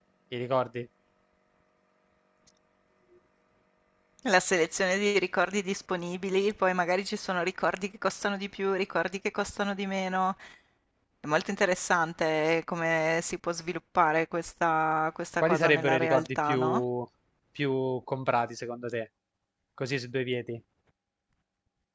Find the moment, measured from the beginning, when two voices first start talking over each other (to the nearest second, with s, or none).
15 s